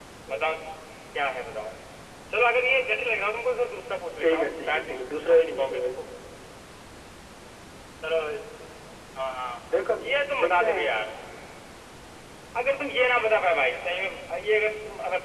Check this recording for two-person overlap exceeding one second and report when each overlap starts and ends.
4.2-5.9

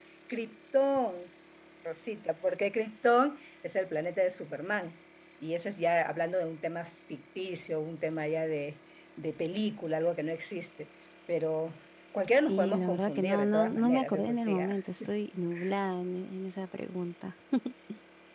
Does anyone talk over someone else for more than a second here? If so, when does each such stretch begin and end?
12.5-14.8

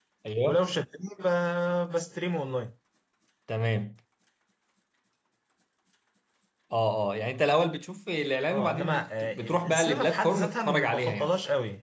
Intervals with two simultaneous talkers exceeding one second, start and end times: 8.5-11.3

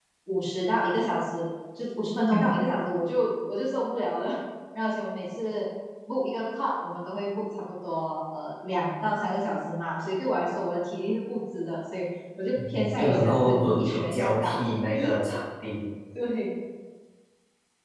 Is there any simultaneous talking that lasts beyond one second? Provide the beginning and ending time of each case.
13.0-14.6

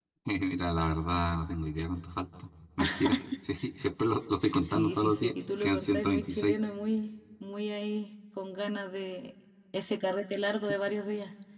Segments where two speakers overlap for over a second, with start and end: 4.6-6.5

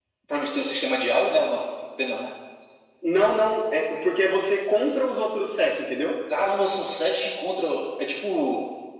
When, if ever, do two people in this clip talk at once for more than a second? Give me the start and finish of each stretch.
none

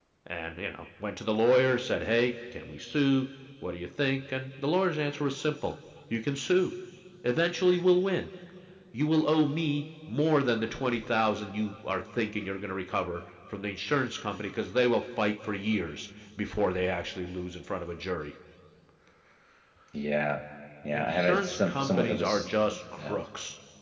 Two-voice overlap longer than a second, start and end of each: 20.9-22.5

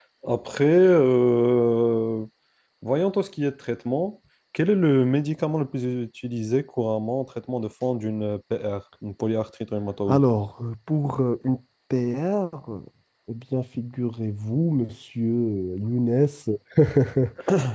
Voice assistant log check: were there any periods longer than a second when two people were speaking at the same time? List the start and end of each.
none

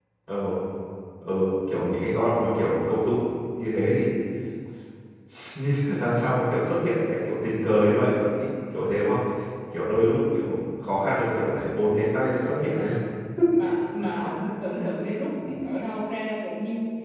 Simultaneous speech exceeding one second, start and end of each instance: none

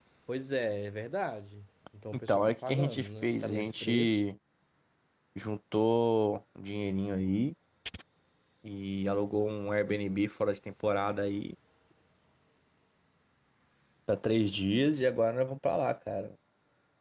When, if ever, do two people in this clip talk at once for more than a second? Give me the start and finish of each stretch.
2.3-4.2

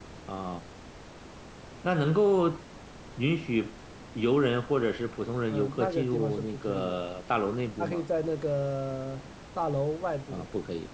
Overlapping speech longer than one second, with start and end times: 5.5-7.0

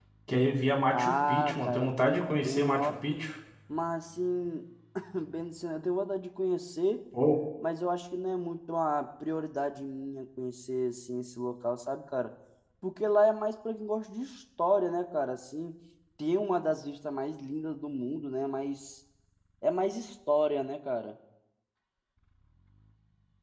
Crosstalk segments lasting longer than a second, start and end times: 0.9-3.0

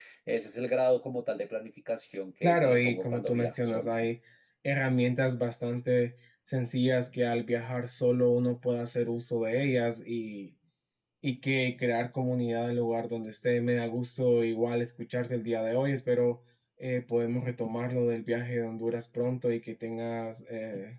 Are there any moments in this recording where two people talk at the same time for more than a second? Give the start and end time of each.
2.4-3.9

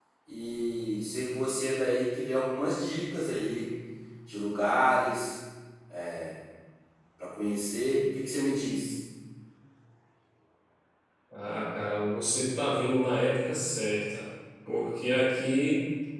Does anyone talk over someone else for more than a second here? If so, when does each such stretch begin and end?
none

